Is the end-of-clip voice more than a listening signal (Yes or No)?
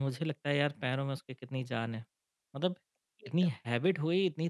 No